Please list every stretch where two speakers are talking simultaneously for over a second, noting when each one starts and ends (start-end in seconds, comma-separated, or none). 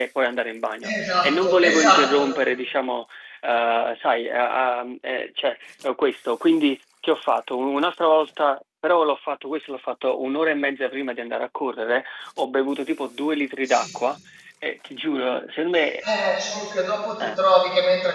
0.9-2.3